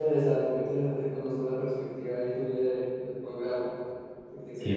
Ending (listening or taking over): taking over